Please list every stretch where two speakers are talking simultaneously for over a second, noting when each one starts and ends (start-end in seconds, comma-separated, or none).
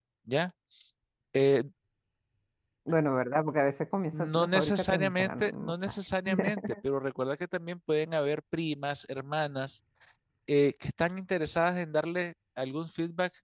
4.1-5.7